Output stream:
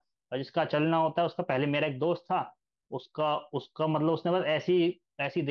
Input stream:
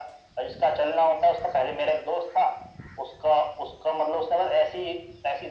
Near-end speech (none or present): none